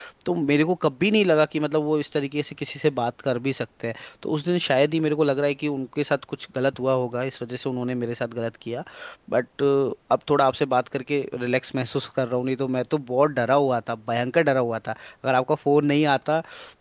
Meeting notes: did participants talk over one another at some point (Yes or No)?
No